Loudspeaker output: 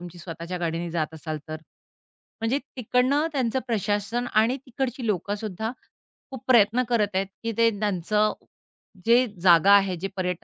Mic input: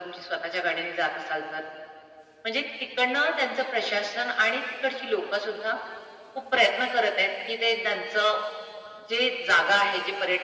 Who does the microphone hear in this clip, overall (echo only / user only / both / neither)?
echo only